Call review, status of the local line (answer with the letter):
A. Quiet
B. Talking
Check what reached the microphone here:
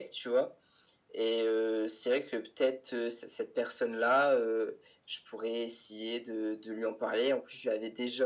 A